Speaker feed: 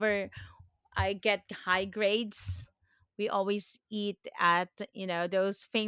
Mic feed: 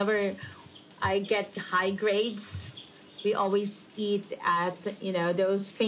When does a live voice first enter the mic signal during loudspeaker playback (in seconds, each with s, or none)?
none